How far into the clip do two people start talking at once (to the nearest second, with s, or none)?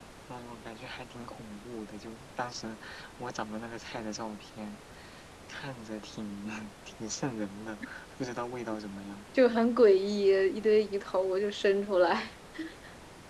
none